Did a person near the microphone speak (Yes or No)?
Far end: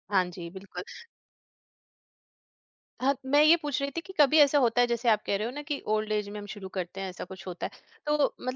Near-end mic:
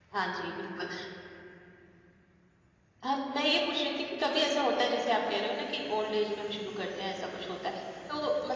No